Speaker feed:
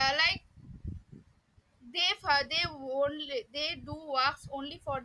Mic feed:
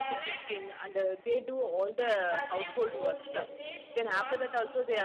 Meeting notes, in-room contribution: present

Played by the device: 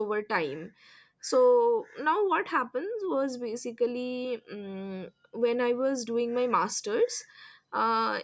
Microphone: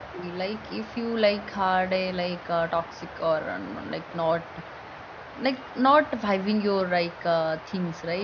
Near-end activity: present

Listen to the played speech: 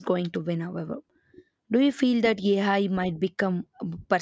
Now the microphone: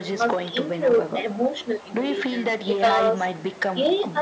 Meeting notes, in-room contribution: present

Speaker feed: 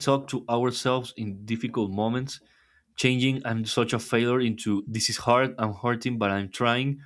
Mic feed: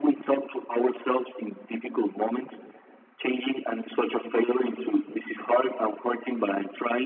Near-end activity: none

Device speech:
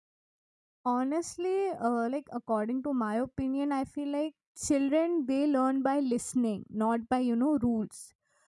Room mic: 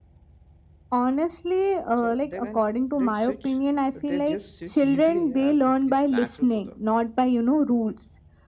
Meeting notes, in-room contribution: present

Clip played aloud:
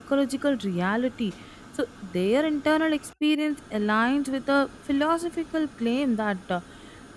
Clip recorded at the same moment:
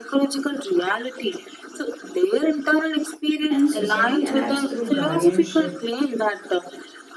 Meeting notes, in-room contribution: present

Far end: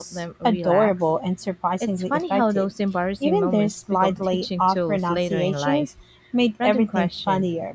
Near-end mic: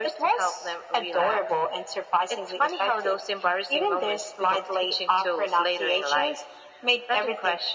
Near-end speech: none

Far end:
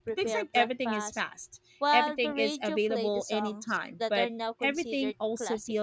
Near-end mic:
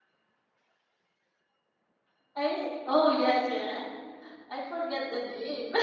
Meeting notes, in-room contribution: present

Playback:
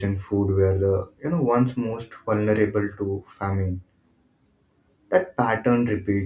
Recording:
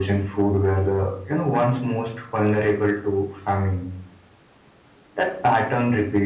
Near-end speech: none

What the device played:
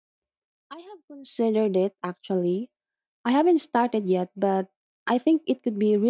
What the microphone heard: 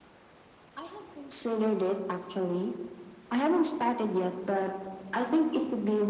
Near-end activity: none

